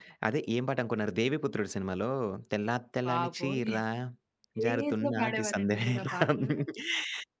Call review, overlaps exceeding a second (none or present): present